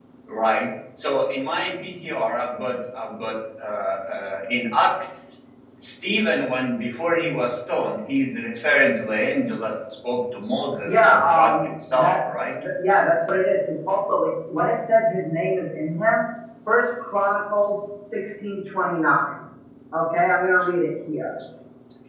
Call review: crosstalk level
present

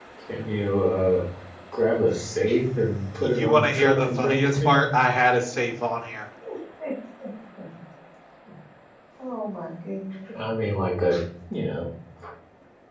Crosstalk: present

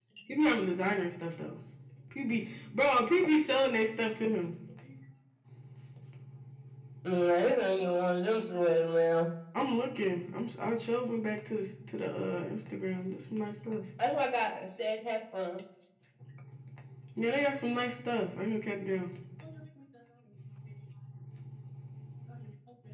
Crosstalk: none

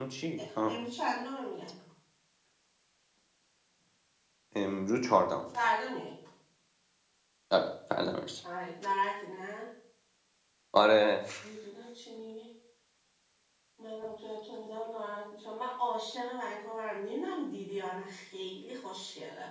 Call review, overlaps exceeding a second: none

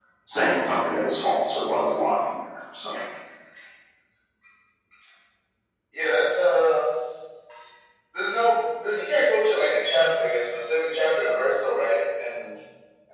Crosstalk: none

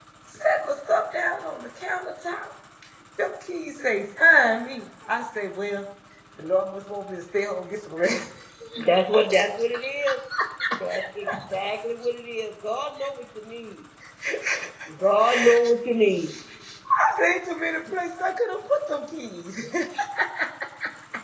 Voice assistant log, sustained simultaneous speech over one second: none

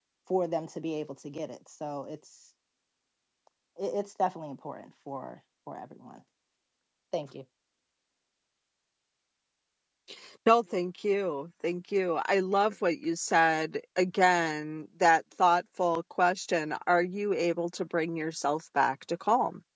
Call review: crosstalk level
none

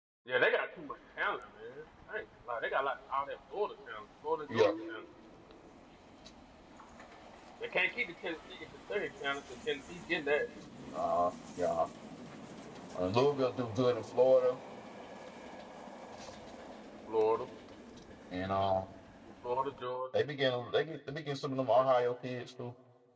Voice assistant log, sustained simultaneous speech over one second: none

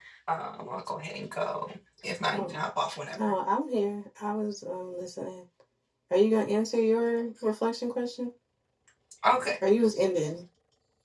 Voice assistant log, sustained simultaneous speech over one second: none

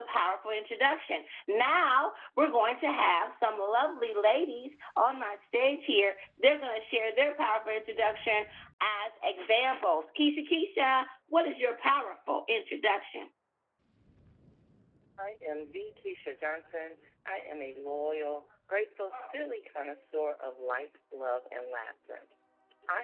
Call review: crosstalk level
none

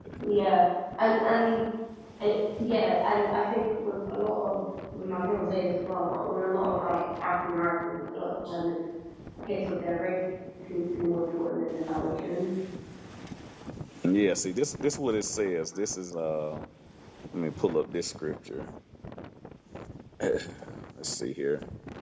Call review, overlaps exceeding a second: none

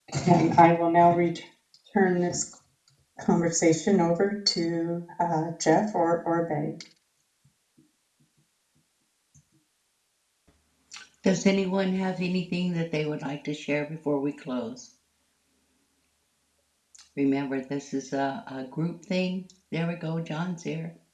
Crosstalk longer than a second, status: none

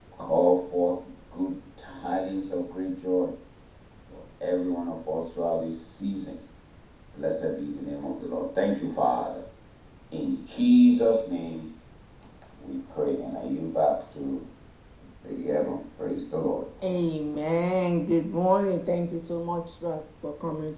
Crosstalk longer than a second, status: none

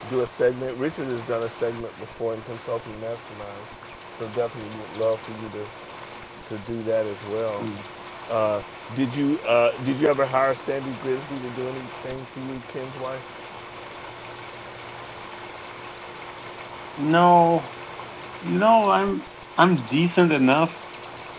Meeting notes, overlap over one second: none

